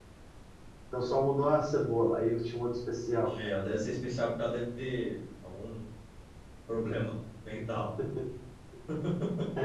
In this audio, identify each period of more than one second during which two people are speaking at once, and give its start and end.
none

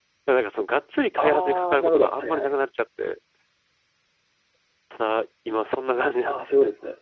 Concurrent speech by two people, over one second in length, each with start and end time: 1.2-2.5

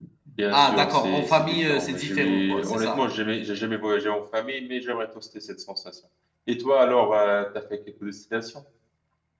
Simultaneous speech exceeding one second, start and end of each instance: 0.5-3.2

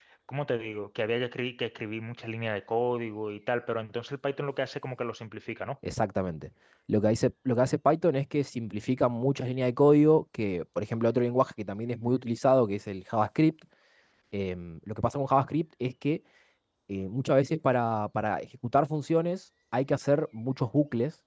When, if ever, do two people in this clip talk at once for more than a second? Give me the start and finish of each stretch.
none

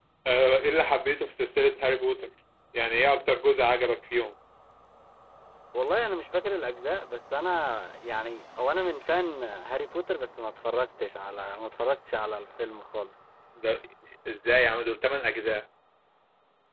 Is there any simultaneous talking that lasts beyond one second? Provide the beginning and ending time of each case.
none

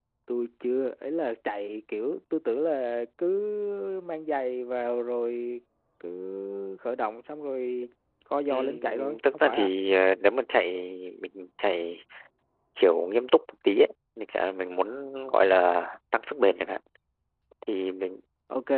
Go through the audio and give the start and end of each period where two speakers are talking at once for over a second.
8.5-9.7

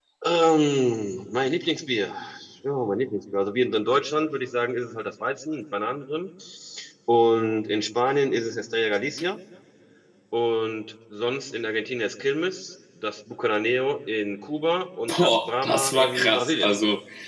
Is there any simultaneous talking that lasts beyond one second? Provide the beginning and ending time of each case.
15.2-16.7

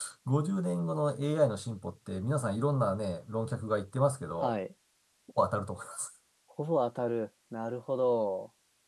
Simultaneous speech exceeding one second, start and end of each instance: none

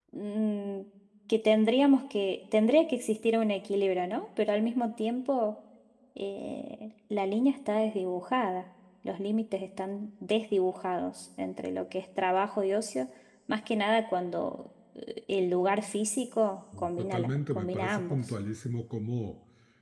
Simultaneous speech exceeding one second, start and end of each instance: 17.0-18.3

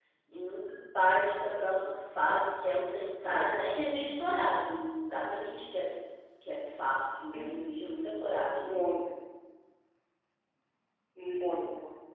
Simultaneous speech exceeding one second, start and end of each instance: none

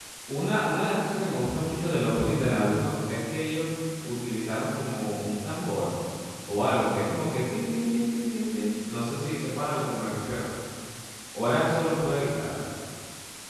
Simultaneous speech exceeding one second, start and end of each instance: none

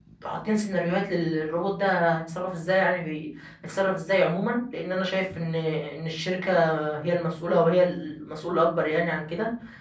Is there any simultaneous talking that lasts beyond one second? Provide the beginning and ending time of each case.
none

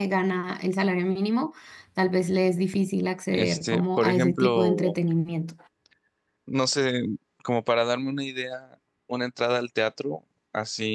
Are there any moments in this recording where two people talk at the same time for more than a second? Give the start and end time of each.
3.3-5.0

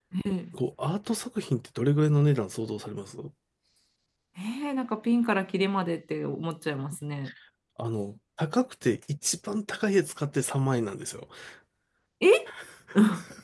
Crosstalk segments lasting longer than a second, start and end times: none

